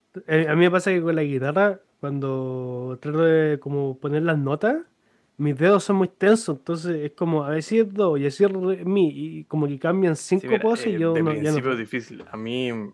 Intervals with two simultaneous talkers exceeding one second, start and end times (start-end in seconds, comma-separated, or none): 10.4-11.8